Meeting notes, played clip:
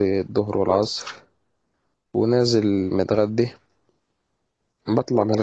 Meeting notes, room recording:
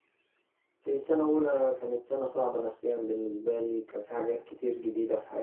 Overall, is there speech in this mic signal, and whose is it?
user only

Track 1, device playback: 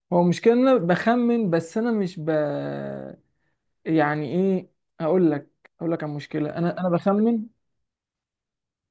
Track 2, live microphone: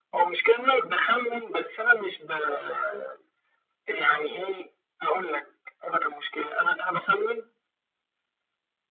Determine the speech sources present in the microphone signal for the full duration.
echo only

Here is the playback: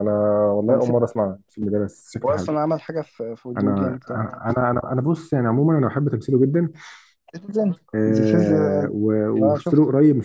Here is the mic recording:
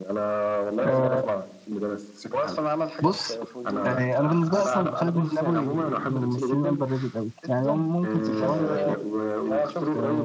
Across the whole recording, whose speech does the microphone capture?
both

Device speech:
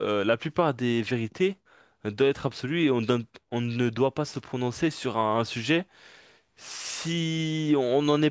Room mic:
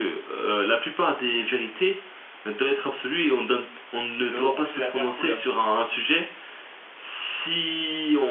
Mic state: both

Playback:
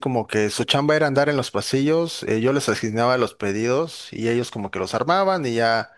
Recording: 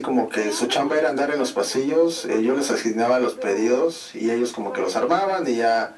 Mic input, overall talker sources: both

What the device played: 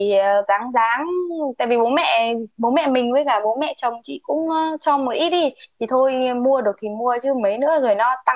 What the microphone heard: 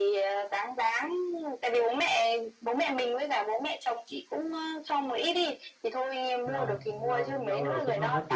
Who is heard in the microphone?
both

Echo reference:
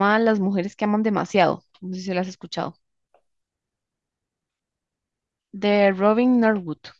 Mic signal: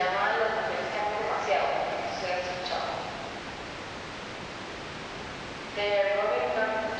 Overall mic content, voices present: echo only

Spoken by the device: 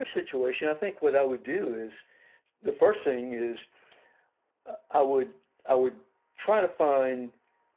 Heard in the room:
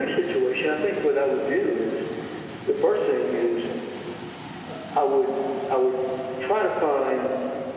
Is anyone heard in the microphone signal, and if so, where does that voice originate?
echo only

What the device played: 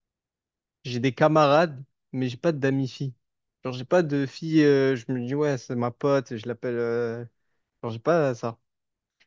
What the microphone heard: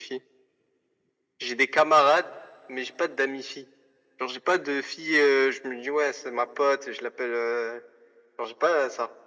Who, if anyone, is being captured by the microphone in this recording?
echo only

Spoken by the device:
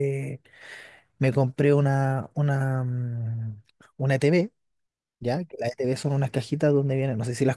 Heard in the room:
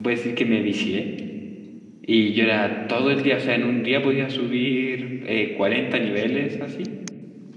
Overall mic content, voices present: user only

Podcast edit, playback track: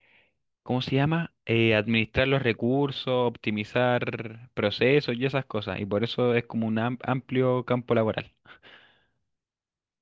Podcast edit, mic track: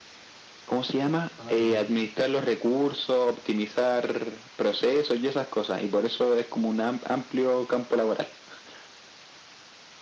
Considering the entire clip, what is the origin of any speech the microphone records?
both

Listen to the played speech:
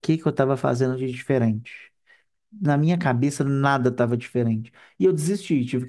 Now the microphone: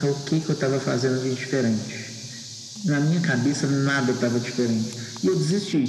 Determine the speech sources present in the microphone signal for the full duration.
echo only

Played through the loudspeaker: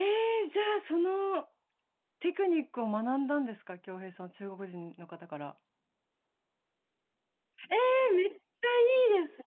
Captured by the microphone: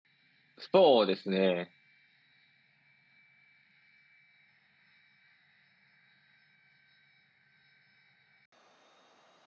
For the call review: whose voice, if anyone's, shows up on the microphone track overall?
user only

